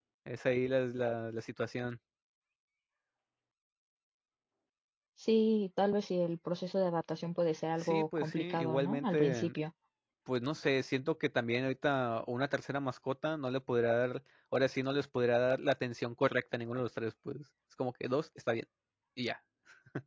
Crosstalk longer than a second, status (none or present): present